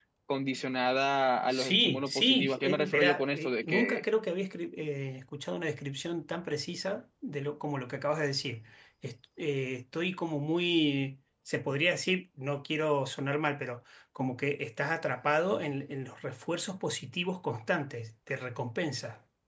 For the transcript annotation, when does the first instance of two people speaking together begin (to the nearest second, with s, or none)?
2 s